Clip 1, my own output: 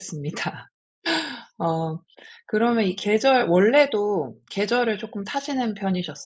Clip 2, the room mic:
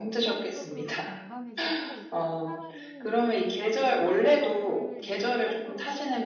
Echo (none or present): present